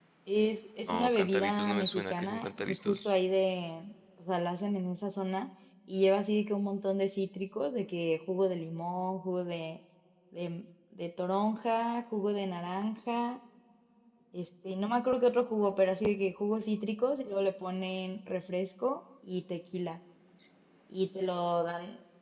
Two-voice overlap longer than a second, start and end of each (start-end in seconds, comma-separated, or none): 0.9-3.1